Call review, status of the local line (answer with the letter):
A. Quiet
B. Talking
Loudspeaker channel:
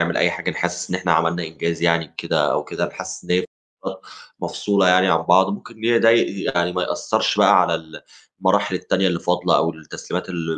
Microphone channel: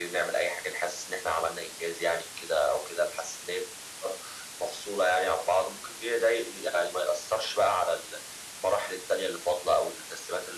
A